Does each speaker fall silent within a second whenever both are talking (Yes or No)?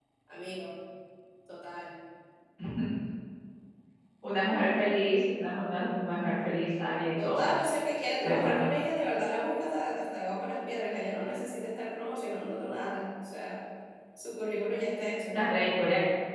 Yes